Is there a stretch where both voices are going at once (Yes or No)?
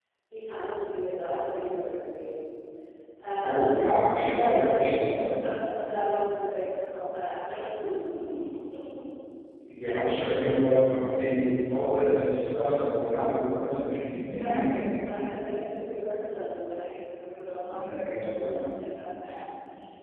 Yes